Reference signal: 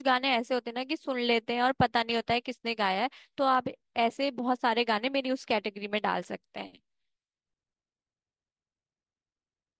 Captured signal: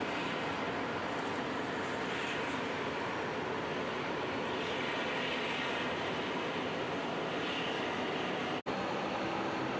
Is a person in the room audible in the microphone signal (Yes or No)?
No